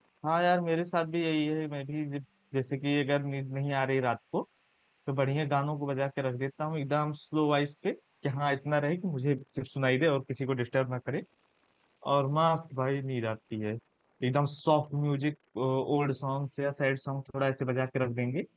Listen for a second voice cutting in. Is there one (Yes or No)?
No